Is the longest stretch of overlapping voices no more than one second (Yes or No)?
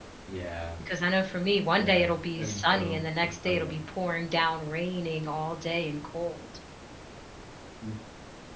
No